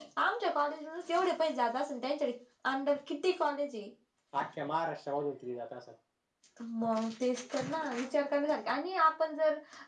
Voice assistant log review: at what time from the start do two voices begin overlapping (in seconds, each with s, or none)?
none